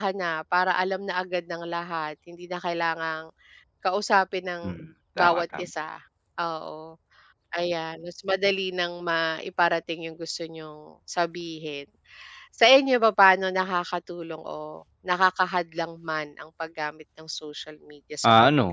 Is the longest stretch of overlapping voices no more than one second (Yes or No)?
Yes